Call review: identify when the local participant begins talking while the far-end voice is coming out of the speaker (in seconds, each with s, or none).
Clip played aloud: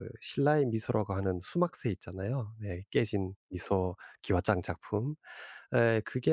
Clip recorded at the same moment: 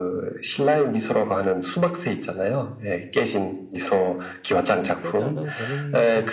4.5 s